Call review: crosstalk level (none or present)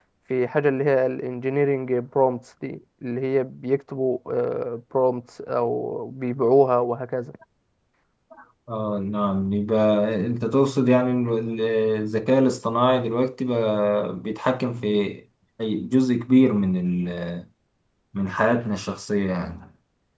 none